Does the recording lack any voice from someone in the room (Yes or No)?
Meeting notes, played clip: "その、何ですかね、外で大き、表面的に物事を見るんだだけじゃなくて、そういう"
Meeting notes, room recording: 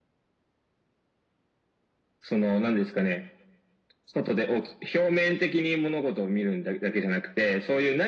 Yes